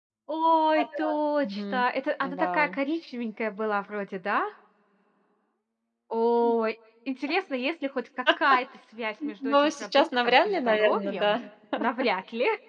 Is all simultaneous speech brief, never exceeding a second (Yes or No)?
No